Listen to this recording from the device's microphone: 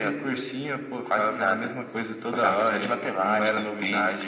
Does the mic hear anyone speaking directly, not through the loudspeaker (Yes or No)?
No